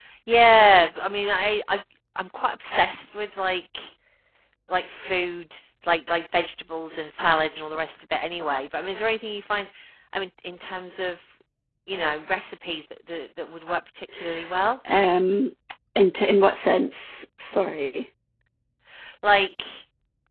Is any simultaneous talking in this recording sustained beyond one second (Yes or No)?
No